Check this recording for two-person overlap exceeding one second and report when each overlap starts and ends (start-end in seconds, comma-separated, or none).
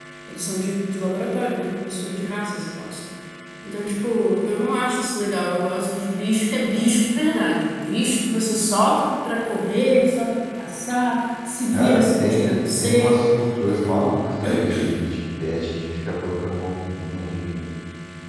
11.7-13.2